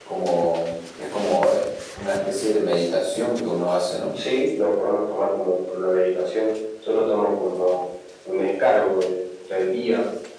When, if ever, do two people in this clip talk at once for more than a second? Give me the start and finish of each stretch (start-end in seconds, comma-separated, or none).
none